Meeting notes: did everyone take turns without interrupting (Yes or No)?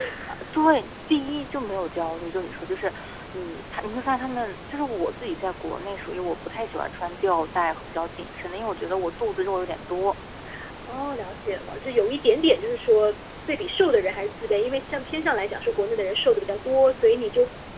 Yes